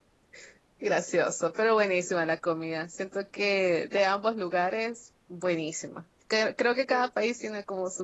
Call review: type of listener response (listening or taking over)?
listening